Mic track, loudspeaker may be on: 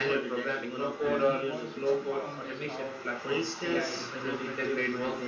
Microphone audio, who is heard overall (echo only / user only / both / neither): both